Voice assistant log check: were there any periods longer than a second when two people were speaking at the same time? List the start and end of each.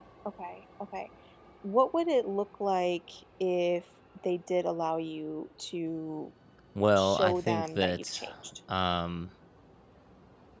7.0-8.2

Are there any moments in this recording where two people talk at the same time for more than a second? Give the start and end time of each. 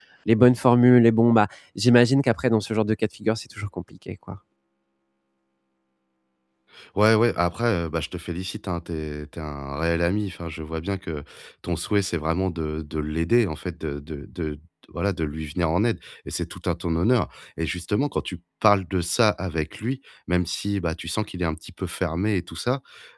none

